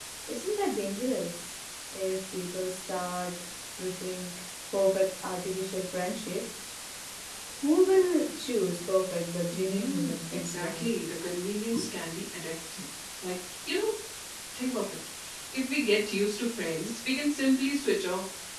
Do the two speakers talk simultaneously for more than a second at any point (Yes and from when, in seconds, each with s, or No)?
Yes, from 9.5 s